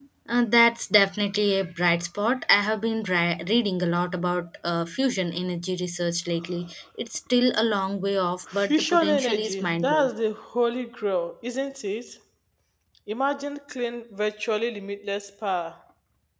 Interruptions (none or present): present